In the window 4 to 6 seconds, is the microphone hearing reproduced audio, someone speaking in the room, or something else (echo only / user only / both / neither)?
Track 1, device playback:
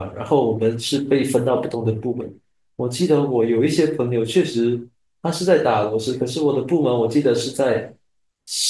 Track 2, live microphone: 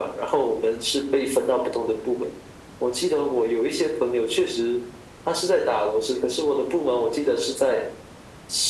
echo only